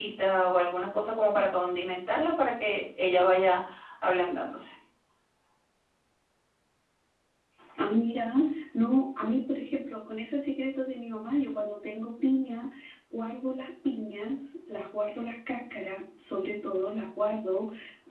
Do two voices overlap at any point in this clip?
No

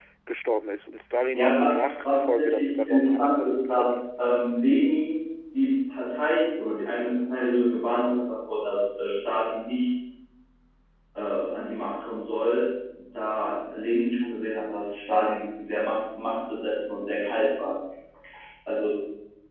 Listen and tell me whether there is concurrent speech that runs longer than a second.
Yes, from 1.3 s

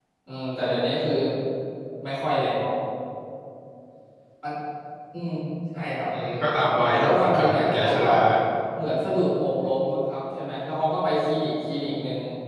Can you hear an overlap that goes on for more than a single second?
Yes, from 6.8 s

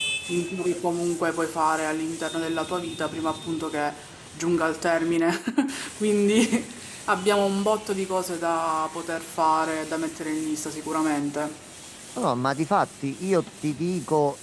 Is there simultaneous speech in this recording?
No

